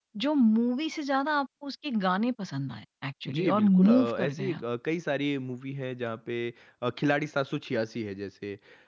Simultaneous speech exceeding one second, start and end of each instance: 3.3-4.6

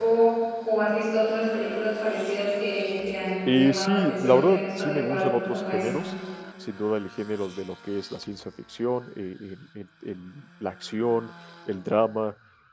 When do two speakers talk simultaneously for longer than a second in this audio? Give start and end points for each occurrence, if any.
3.5-6.0

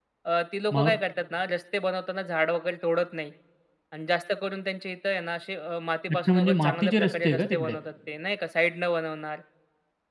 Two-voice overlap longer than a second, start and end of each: 6.3-7.8

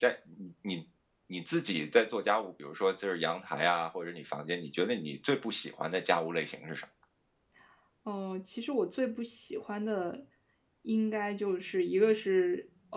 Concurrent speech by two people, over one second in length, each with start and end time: none

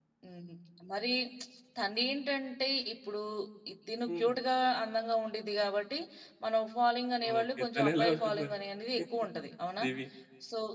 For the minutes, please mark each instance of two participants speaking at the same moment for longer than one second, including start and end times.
7.3-8.5

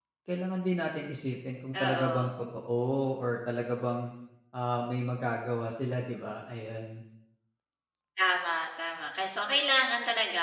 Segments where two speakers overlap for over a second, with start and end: none

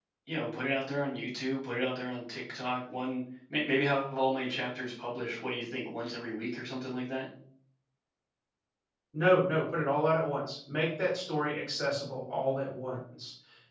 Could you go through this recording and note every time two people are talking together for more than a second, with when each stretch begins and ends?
none

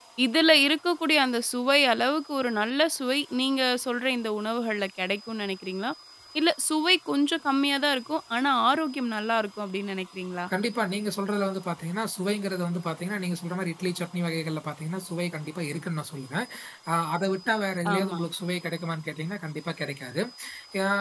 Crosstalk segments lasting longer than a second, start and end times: none

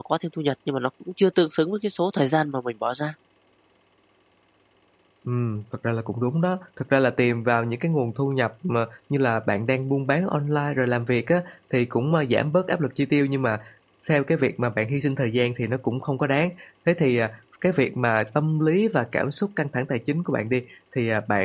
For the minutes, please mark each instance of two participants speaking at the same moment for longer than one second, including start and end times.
none

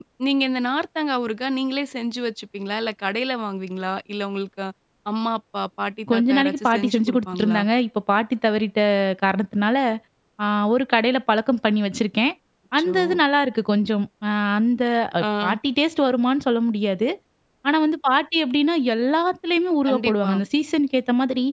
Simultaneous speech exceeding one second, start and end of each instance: 6.1-7.6

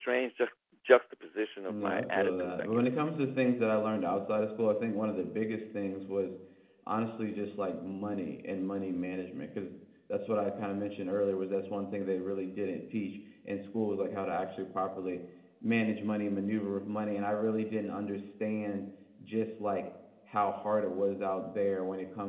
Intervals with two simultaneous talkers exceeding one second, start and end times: 1.7-2.9

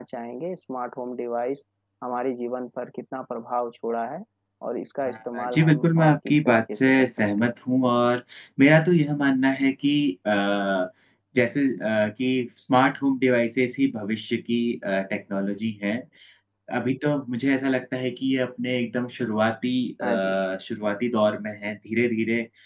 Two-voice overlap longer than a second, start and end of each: 5.0-7.5

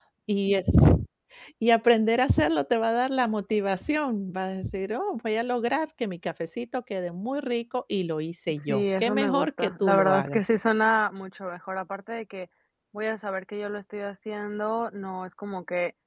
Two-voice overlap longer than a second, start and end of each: 8.7-10.4

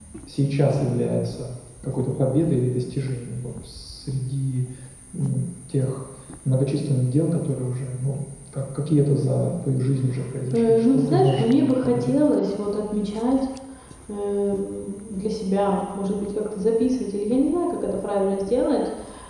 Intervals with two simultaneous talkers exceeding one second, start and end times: 10.5-12.2

